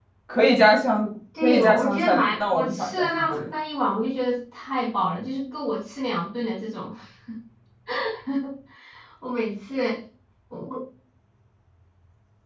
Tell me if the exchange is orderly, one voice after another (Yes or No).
No